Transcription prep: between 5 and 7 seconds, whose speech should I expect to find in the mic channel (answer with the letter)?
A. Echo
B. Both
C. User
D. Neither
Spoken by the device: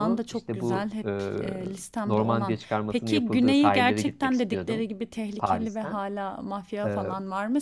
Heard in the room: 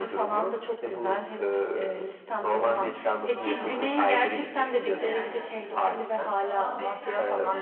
B